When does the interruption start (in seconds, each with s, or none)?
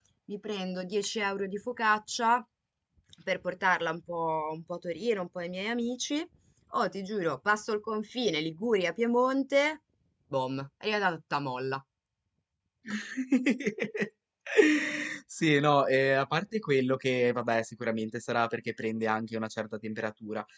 none